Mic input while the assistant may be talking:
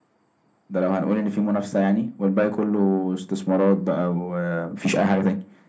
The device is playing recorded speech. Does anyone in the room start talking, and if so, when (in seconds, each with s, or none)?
none